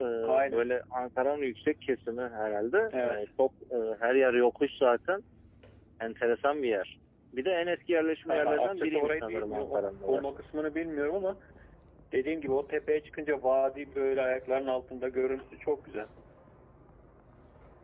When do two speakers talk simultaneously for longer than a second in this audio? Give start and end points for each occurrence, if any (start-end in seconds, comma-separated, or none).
8.3-10.4